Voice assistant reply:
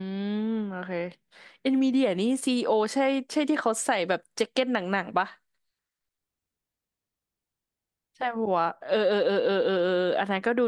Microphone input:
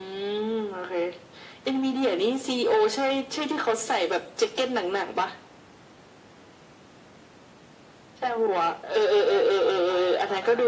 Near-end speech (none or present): present